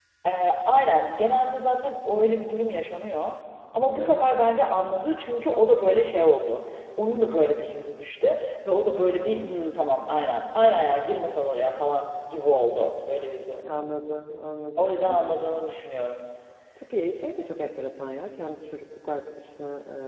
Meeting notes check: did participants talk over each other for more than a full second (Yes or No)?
No